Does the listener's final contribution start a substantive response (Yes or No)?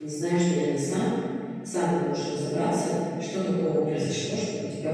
No